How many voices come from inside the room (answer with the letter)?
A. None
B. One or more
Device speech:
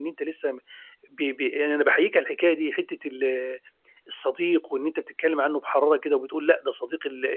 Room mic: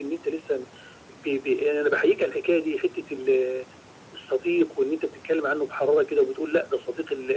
A